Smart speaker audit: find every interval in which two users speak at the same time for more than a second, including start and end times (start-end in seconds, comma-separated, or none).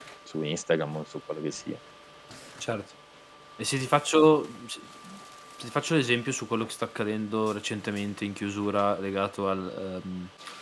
none